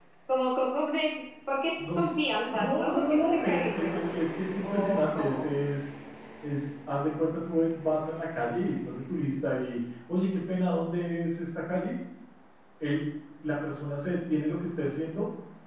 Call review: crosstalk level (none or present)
present